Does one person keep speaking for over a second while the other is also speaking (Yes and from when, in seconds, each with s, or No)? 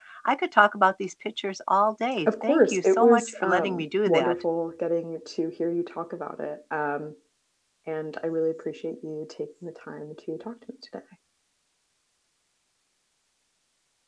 Yes, from 2.3 s